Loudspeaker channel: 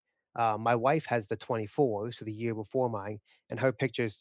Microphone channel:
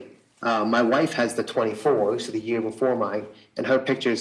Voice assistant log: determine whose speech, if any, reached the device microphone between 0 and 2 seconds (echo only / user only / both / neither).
echo only